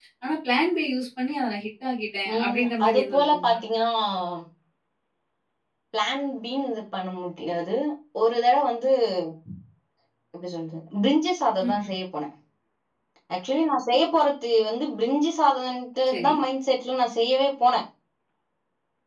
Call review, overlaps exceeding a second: present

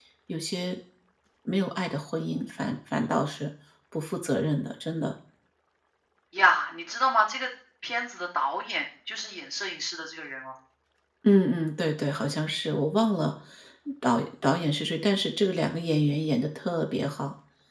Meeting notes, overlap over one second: none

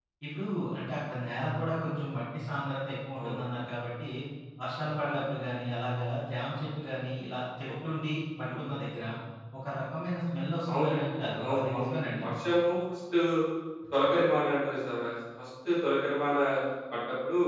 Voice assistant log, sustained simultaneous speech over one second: present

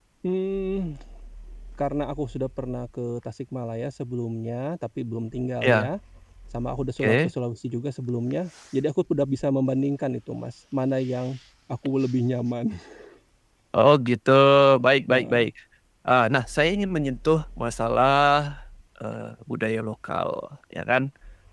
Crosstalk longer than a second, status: none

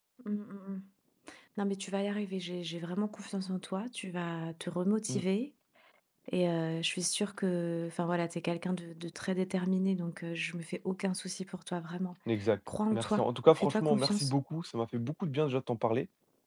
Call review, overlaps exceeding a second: present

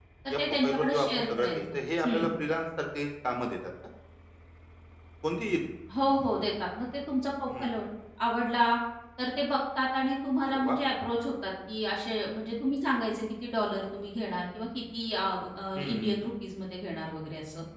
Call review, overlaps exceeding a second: present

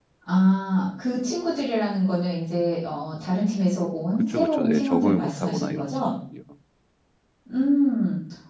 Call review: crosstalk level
present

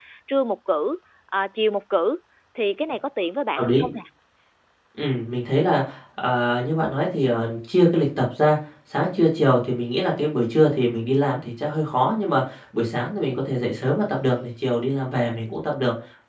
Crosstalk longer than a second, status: none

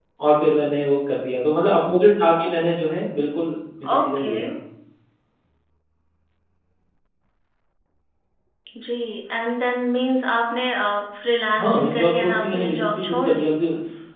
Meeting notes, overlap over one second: present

